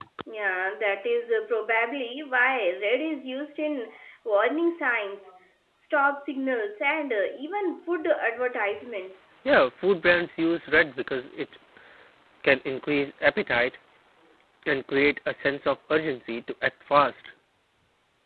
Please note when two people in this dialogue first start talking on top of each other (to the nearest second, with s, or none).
none